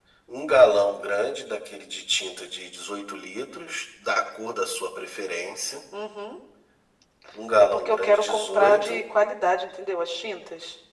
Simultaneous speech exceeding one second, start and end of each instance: 7.6-9.0

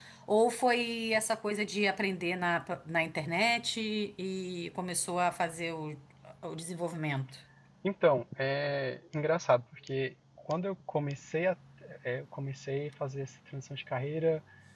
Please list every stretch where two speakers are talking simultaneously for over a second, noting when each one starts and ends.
none

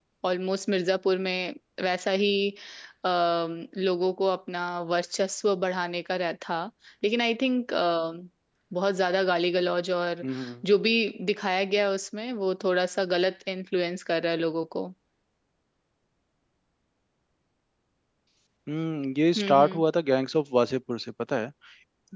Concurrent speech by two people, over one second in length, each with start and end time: none

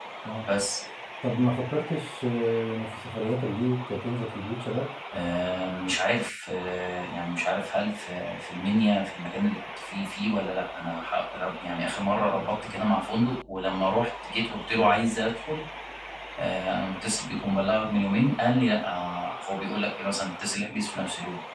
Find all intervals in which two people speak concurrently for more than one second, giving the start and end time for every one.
none

